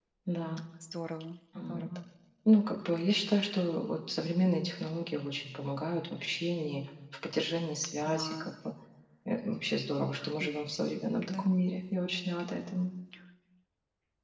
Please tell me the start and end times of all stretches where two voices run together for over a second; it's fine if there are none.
none

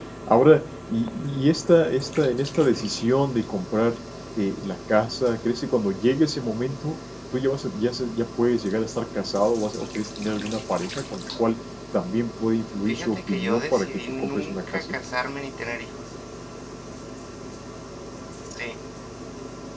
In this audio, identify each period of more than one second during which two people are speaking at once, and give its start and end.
12.9-14.9

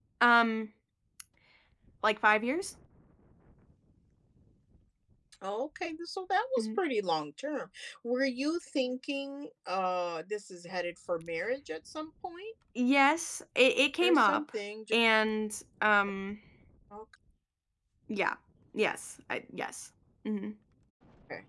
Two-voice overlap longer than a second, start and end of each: none

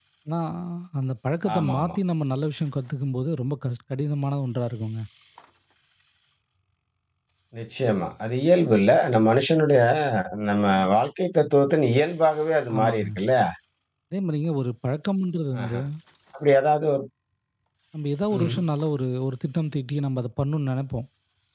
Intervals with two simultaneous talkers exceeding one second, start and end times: none

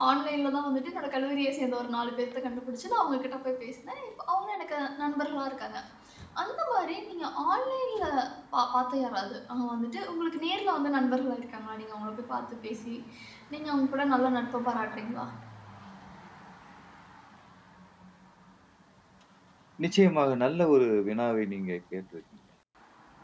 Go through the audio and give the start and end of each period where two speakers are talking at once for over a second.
none

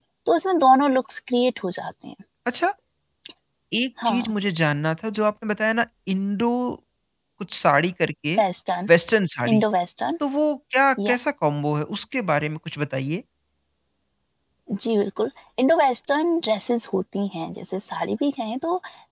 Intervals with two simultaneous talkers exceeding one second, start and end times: none

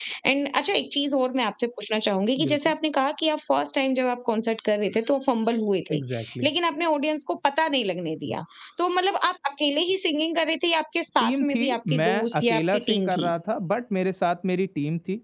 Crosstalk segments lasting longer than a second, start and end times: 11.2-13.3

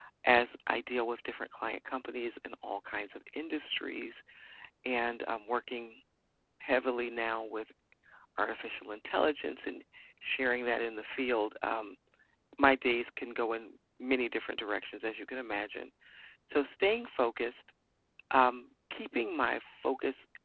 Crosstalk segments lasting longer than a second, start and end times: none

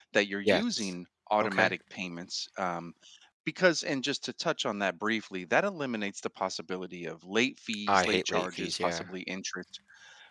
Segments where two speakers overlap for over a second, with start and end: 7.9-9.1

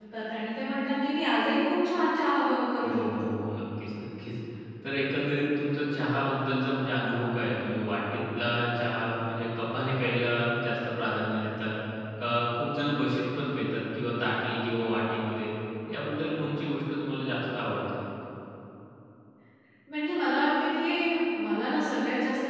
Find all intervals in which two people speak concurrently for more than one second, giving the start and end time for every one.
none

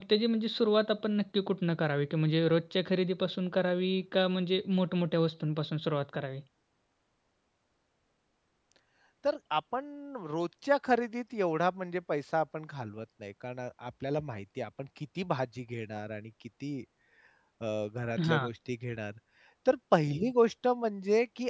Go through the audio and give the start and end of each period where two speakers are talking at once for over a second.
none

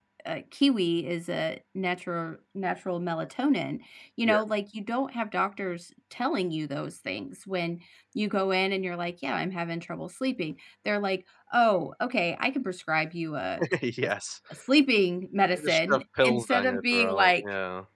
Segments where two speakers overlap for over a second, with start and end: 15.5-17.4

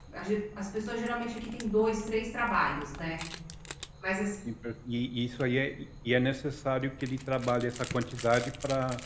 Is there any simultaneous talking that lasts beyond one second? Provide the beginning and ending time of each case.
none

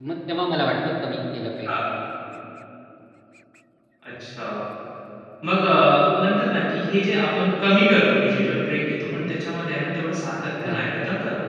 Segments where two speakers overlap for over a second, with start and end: none

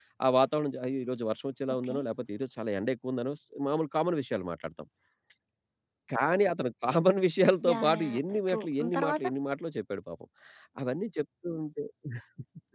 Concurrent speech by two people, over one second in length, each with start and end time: 7.7-9.2

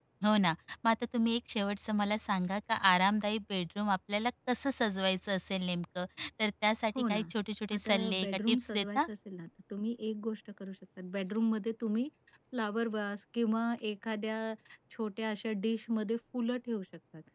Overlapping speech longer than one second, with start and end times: 7.8-9.0

